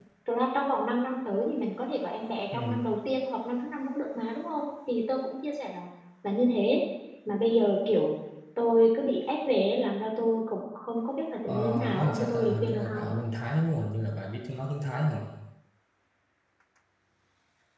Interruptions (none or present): present